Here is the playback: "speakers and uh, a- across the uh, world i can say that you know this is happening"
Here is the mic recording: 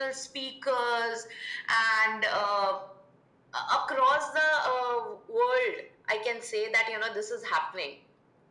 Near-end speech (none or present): none